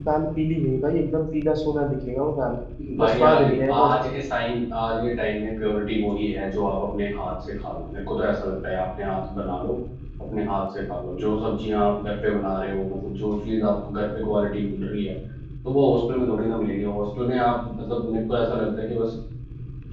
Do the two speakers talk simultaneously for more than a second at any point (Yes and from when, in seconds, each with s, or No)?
Yes, from 3.0 s